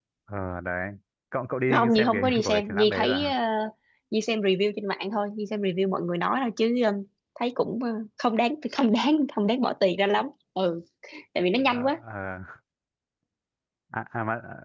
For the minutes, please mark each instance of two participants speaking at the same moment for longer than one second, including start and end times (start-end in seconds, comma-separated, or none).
1.7-3.3